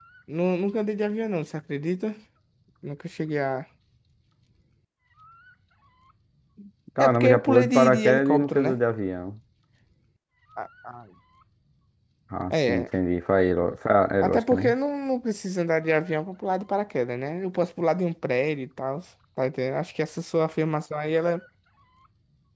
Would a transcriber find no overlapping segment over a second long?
No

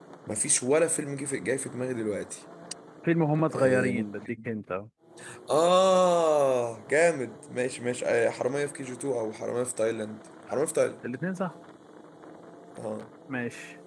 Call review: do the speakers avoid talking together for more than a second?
Yes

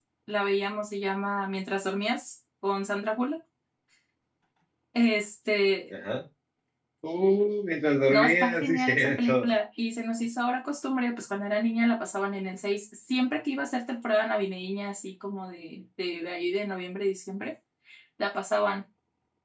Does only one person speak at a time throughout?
No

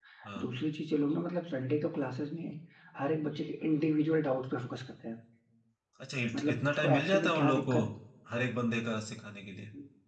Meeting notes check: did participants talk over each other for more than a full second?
Yes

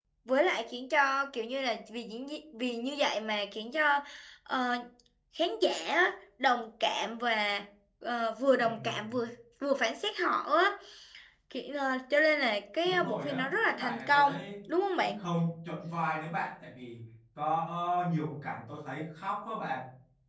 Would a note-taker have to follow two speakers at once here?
Yes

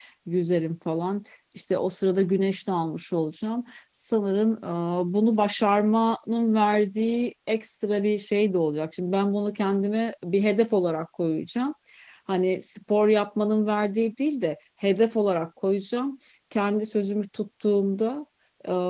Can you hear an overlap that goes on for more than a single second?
No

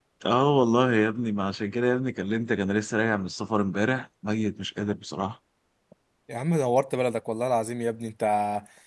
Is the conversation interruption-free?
Yes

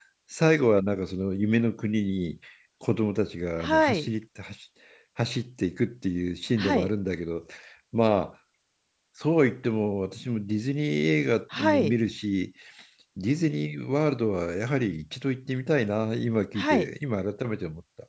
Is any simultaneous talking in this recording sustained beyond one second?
No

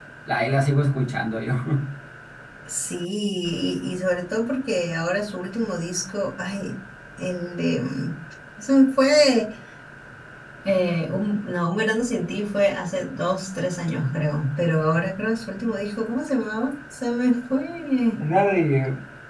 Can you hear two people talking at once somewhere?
No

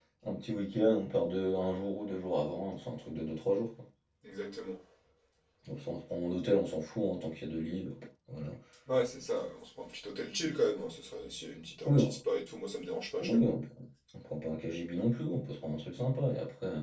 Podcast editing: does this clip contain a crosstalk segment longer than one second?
No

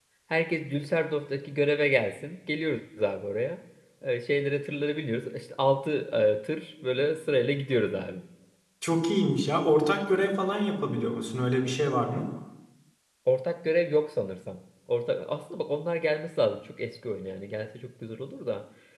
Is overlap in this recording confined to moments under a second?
Yes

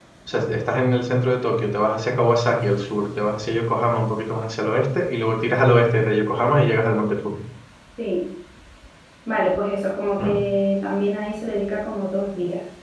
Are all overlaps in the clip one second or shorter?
Yes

